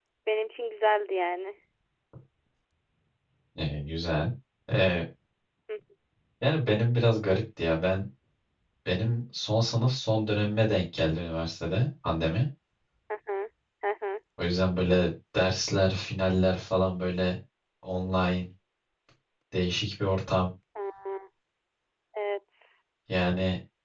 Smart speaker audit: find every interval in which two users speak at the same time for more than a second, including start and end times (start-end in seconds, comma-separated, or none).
none